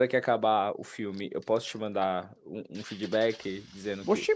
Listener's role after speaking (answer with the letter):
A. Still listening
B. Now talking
B